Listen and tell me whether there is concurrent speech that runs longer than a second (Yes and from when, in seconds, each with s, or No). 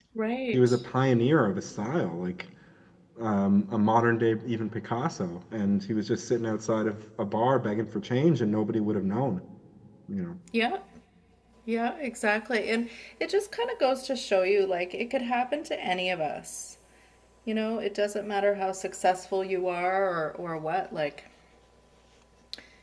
No